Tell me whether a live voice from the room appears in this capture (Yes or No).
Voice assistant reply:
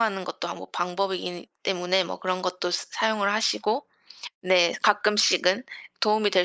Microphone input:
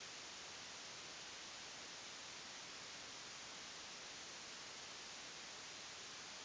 No